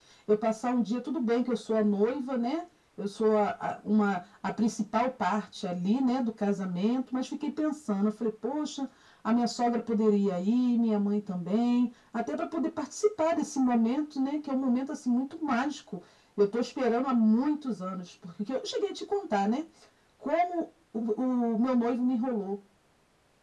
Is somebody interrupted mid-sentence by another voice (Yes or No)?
No